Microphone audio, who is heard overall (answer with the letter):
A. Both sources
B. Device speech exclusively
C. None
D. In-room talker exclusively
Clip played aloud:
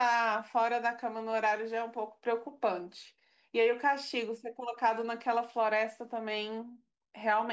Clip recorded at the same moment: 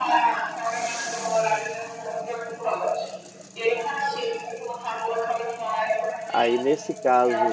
A